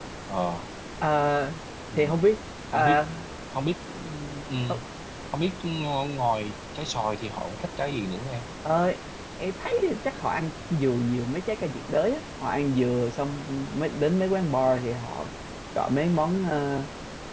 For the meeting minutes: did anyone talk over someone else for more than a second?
No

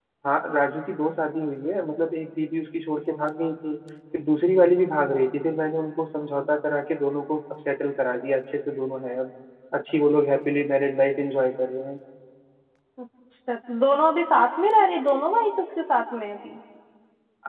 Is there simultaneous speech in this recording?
No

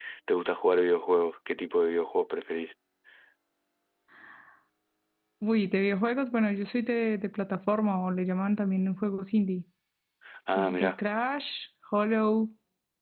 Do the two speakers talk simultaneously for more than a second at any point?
No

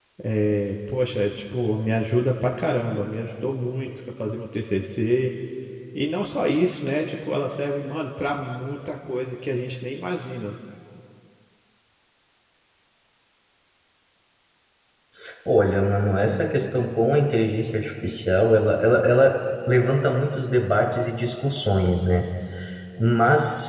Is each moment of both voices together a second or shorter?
Yes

